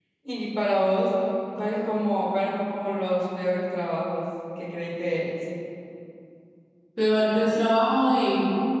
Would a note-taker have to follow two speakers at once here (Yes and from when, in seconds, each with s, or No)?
No